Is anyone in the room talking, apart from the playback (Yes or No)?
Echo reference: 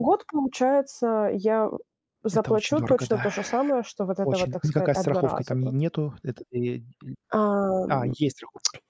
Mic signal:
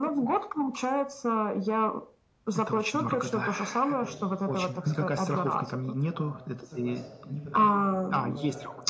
Yes